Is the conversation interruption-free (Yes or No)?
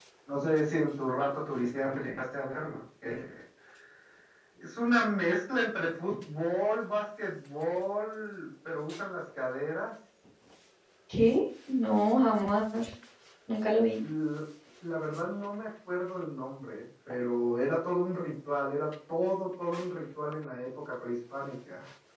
Yes